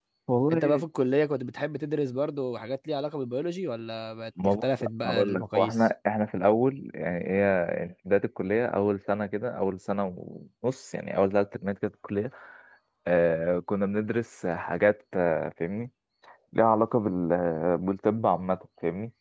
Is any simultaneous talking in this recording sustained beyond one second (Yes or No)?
Yes